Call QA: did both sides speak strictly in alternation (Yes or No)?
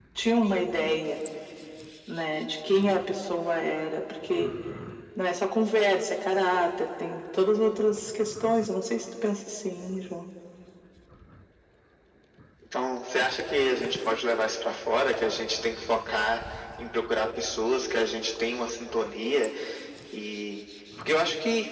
Yes